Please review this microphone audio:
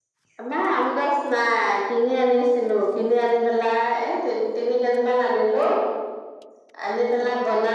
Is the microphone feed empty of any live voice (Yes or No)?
Yes